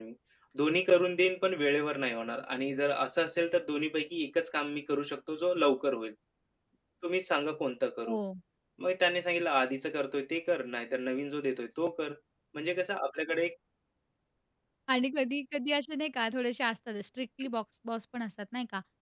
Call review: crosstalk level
none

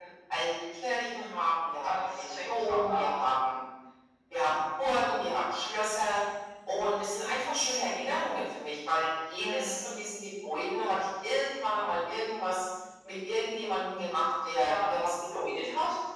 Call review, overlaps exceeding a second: present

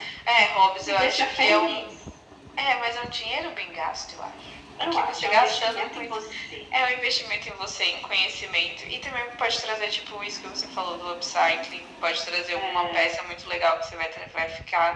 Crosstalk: present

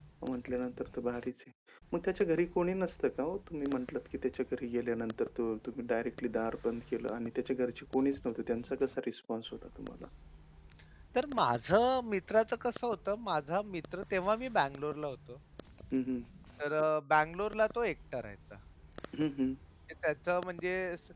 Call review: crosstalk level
none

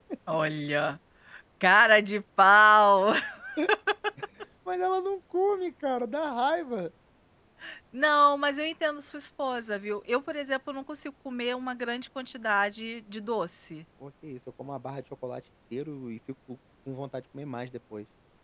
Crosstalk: none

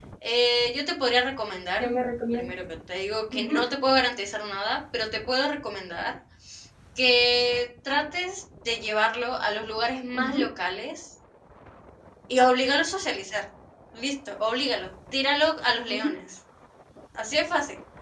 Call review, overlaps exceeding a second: none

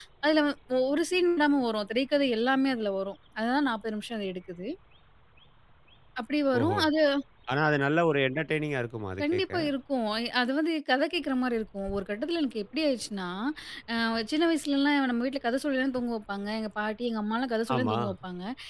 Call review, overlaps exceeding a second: none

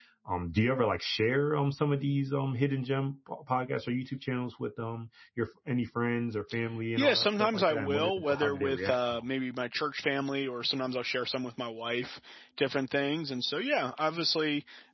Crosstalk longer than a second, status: present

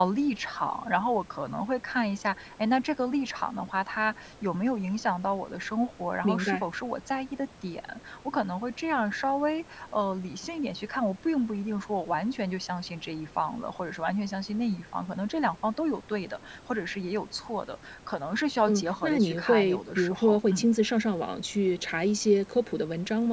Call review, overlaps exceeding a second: present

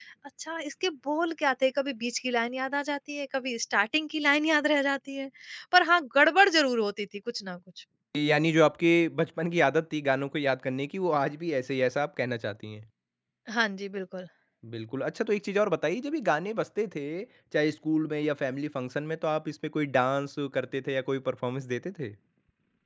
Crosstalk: none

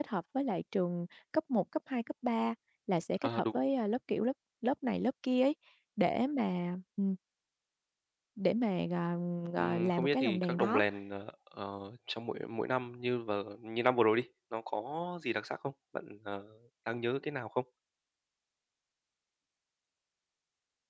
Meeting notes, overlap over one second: present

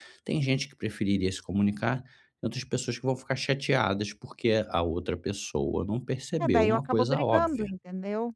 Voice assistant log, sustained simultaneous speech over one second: present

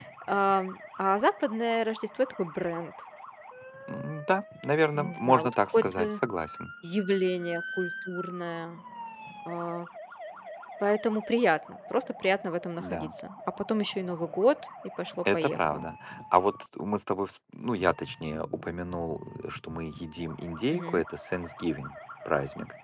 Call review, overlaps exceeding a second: present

